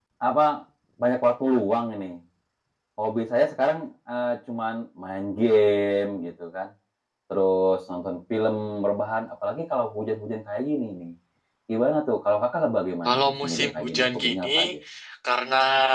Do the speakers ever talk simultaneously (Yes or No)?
Yes